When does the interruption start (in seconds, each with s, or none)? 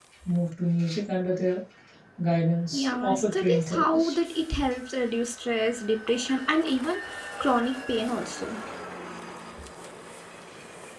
2.7 s